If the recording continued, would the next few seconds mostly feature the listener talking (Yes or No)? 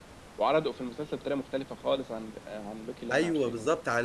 Yes